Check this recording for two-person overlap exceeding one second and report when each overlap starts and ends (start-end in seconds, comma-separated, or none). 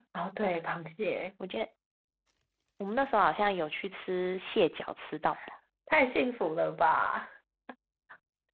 none